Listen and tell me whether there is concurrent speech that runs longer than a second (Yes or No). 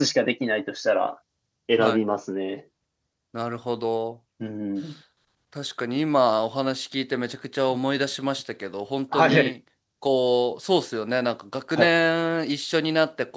No